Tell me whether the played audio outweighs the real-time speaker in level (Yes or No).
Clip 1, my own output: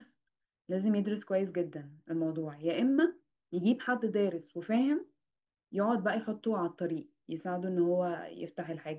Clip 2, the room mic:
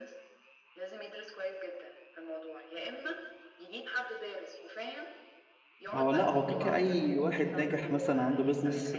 No